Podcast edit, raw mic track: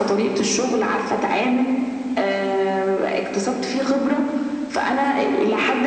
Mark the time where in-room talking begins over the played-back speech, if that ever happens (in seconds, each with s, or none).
none